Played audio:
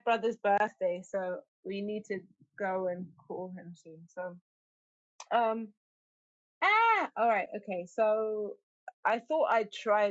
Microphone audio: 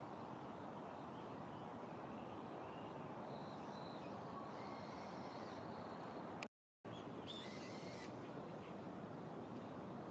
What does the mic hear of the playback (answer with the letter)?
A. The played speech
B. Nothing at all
B